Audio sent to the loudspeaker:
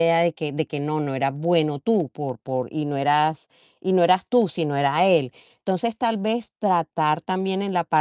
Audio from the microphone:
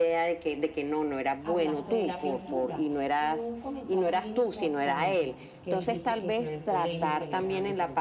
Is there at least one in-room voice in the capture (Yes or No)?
Yes